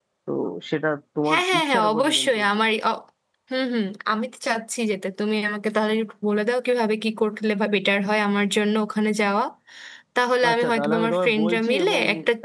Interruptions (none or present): present